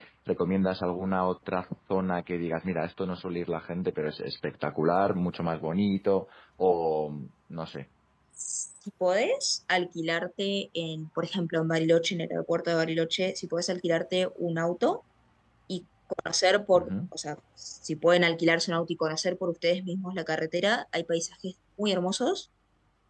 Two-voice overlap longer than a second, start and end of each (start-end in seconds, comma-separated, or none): none